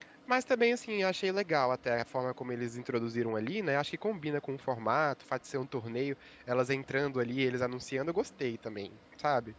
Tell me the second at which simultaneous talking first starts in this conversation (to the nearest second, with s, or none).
none